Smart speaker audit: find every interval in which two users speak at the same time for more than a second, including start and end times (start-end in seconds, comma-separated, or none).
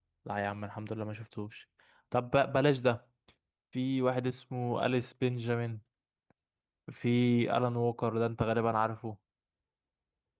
none